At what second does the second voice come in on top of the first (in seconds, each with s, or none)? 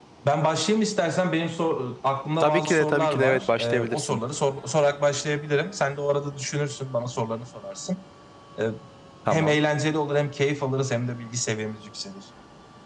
2.4 s